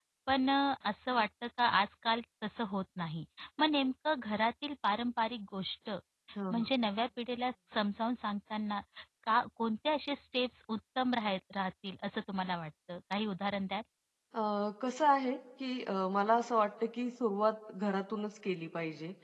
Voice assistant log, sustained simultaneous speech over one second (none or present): none